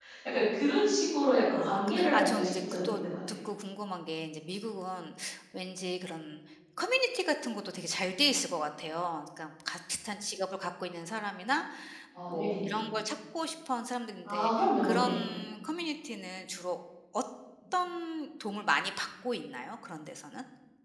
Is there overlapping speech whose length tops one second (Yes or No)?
Yes